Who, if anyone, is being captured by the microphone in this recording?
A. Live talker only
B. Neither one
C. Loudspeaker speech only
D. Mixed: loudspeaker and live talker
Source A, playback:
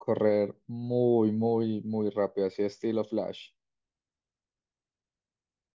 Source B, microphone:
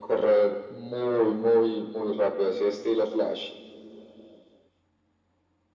C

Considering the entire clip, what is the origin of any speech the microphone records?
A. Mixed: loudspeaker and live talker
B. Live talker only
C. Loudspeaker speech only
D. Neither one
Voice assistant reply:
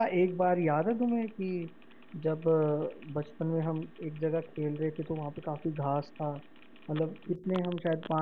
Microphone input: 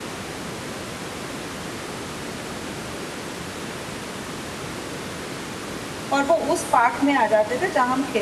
B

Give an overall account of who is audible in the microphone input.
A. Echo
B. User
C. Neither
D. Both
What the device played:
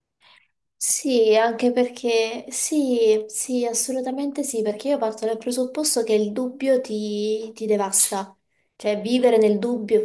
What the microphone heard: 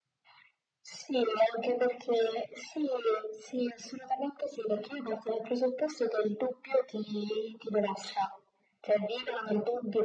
A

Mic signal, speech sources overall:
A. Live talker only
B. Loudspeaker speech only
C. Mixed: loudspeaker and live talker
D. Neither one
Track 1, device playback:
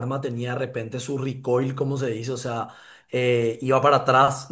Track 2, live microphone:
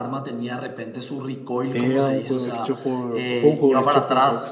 C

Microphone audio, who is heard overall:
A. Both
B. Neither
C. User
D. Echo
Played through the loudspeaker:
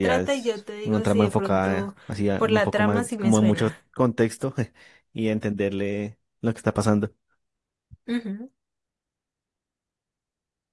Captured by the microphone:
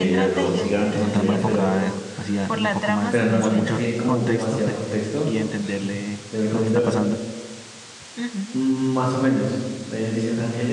A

